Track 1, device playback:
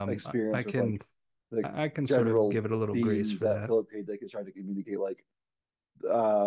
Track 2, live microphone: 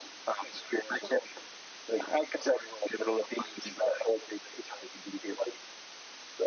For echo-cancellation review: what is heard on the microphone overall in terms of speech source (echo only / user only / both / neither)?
echo only